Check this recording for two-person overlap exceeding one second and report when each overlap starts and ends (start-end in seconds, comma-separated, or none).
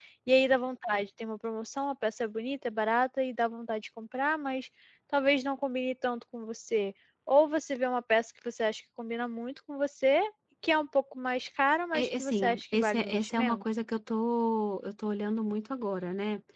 11.9-13.6